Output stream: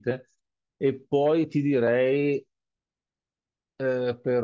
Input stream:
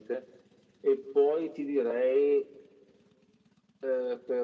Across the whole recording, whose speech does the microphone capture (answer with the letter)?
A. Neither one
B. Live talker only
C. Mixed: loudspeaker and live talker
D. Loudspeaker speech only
D